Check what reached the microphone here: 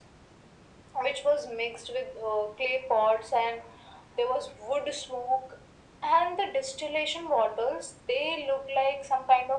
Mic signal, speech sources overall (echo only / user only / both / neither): echo only